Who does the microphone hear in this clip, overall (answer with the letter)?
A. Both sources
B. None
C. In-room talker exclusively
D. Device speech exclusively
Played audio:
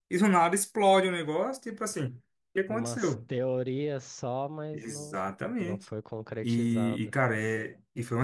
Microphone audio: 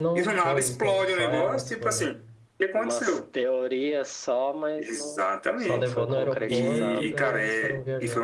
A